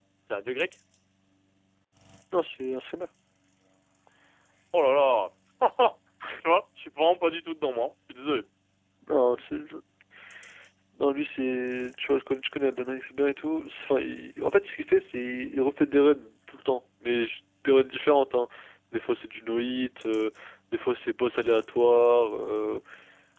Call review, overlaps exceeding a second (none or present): none